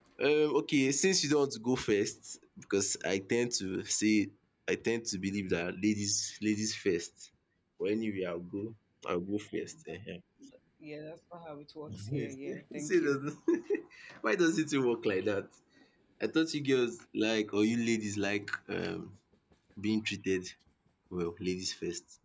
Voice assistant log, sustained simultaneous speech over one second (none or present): present